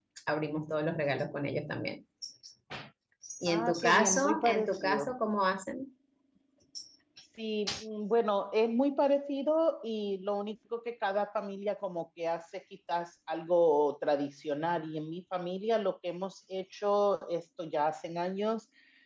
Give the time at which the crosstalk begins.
3.5 s

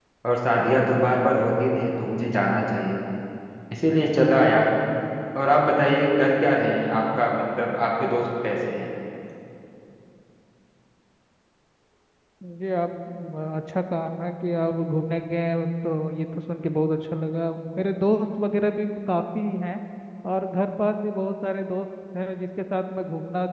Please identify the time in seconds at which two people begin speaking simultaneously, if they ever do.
none

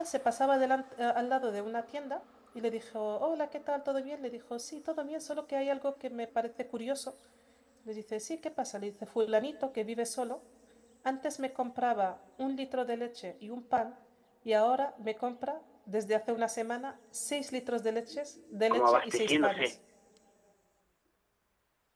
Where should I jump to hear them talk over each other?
17.9 s

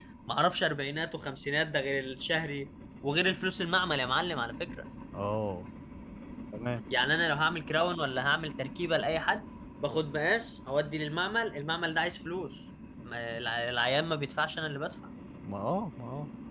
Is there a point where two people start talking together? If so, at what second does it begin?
none

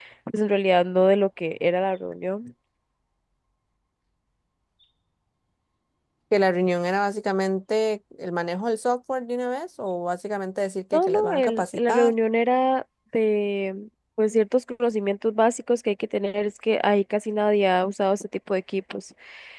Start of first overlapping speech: 10.9 s

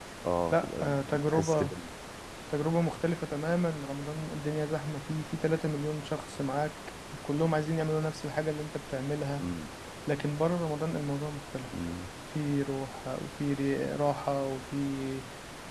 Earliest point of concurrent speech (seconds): 0.5 s

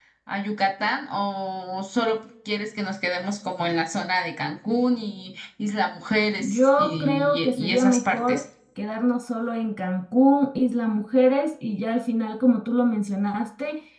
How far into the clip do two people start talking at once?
6.4 s

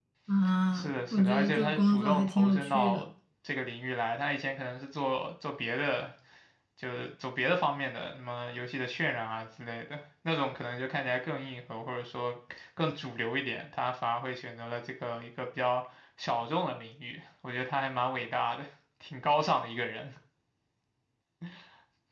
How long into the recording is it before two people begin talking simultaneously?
0.7 s

